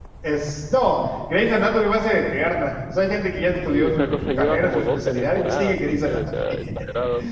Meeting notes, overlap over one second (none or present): present